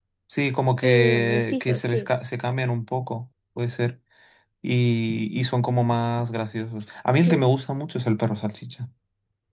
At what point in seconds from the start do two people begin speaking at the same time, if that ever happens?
0.8 s

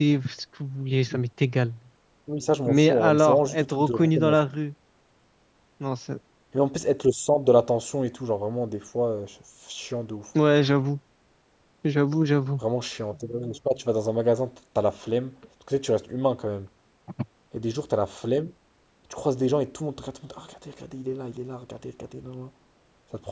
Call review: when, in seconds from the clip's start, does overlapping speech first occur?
2.7 s

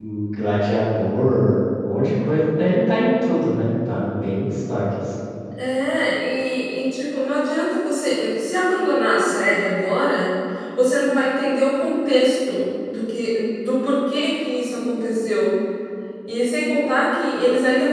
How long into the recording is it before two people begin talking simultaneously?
none

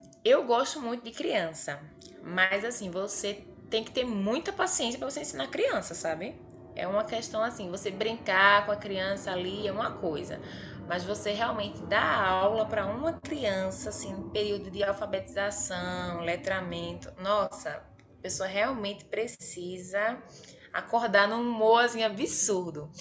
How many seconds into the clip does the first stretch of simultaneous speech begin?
none

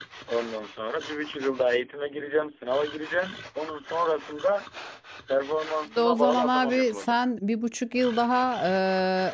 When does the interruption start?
6.0 s

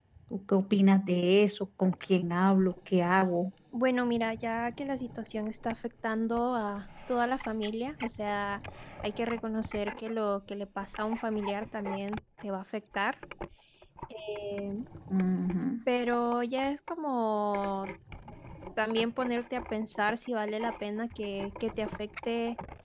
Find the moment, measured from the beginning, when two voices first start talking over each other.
none

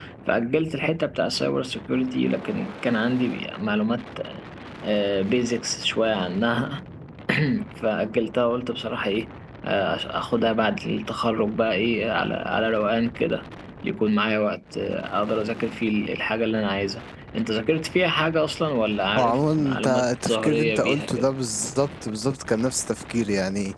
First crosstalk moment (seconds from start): 19.1 s

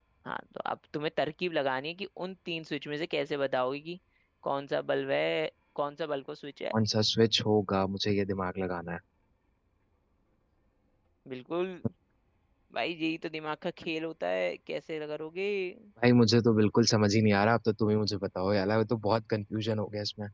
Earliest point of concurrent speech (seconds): none

